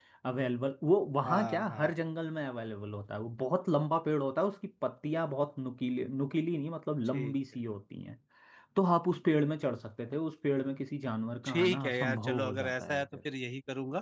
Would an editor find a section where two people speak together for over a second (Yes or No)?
Yes